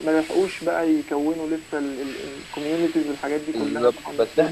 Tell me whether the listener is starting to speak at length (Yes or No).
Yes